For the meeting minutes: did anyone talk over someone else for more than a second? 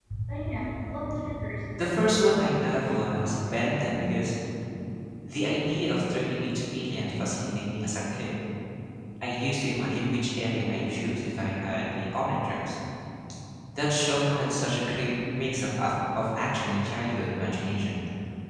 Yes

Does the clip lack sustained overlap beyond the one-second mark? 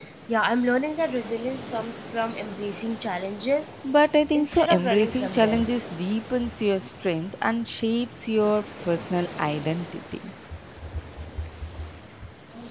No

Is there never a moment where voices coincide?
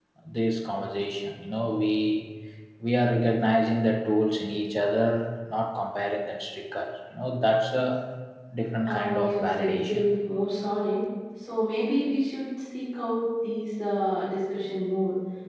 No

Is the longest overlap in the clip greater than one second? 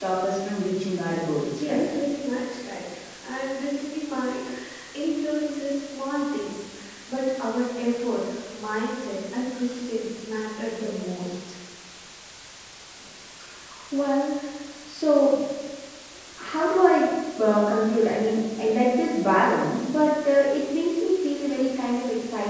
No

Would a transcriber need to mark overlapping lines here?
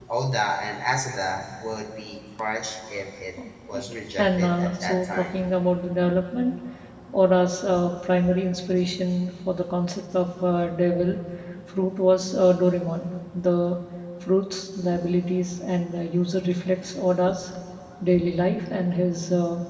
Yes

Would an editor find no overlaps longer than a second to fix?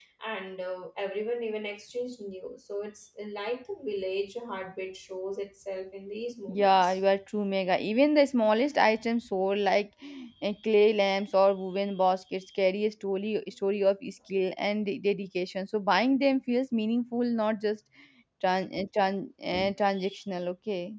Yes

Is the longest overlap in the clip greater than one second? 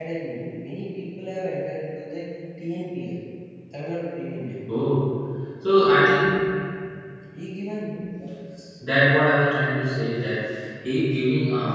No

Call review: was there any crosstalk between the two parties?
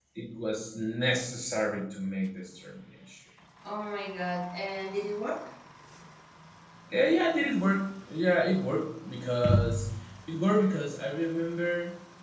No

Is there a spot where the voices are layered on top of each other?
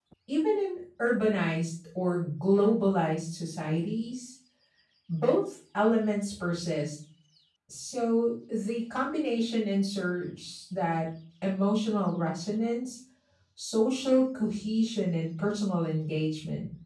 No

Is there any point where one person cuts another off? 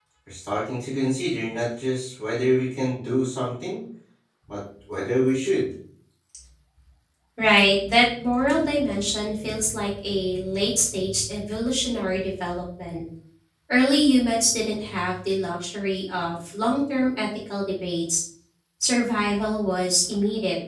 No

